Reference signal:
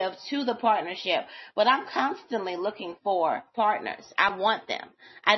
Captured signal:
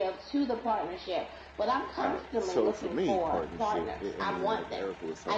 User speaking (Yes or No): Yes